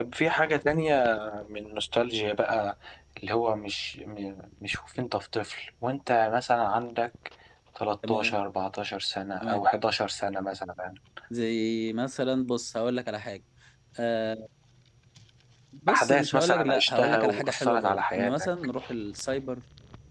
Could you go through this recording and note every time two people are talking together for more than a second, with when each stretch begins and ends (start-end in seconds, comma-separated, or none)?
15.9-18.5